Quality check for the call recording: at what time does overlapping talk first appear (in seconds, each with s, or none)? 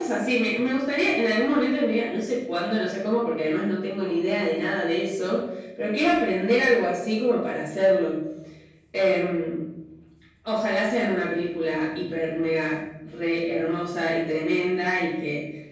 none